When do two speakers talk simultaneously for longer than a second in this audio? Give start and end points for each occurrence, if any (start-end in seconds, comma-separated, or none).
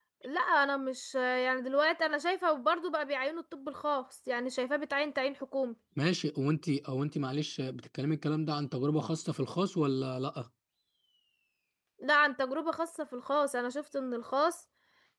none